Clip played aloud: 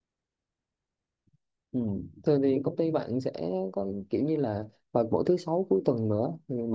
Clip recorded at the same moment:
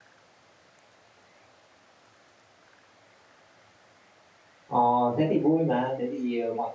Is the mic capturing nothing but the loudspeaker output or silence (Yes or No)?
No